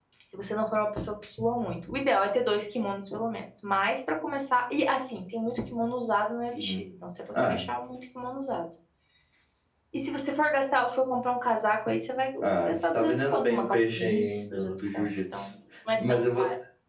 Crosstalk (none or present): present